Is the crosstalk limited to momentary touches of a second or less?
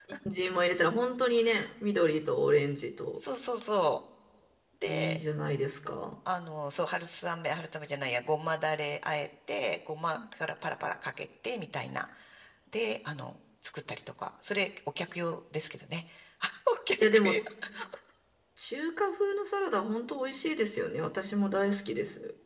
Yes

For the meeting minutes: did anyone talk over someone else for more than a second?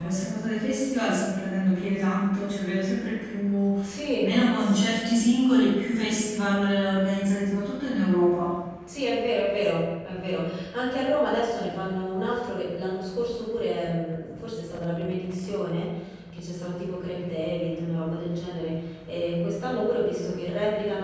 No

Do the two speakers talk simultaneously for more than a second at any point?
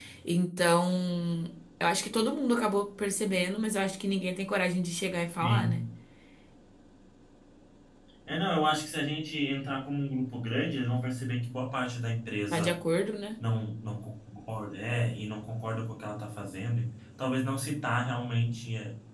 No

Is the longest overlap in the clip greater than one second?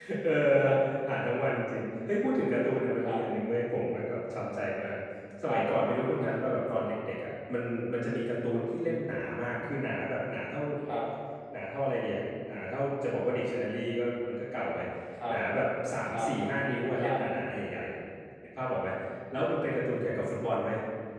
No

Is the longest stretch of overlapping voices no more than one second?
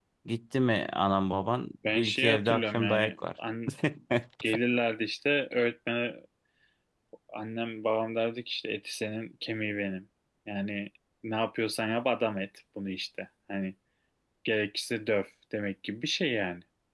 No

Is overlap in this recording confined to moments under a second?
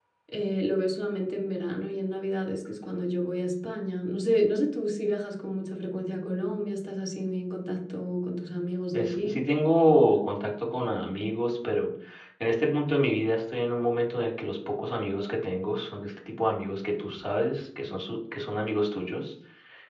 Yes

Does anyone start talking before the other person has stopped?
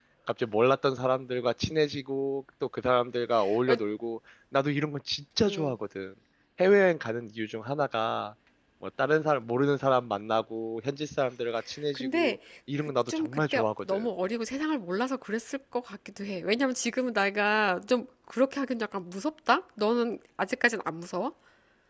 Yes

